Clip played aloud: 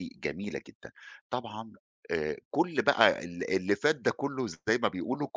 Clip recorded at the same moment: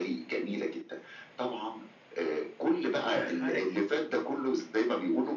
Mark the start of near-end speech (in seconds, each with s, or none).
3.1 s